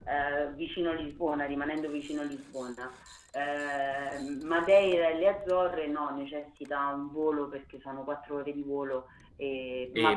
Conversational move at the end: taking over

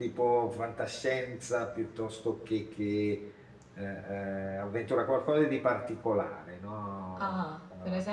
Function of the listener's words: taking over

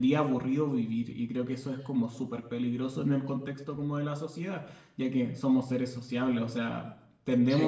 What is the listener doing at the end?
listening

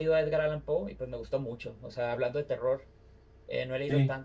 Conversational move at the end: listening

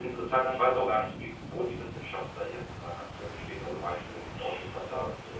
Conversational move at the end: listening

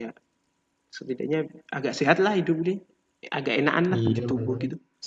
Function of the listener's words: taking over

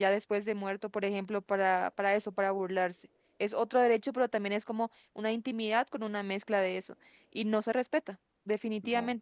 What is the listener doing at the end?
listening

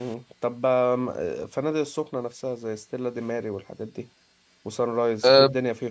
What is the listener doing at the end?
taking over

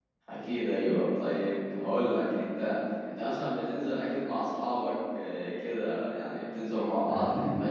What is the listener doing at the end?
taking over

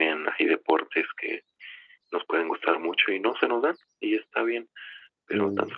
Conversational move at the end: listening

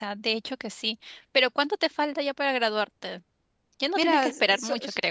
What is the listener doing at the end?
taking over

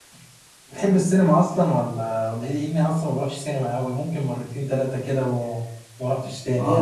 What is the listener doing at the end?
taking over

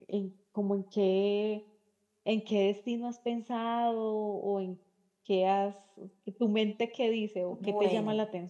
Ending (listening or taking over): taking over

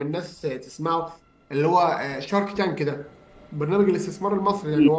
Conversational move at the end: listening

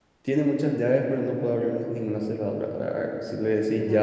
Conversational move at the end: listening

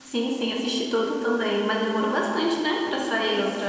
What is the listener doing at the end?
taking over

